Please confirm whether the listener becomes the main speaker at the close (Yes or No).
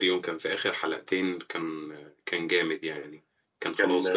No